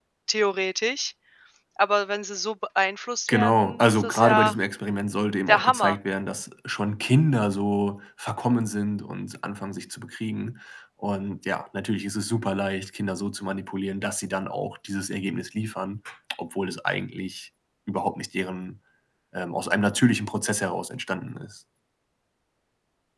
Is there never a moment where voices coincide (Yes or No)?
No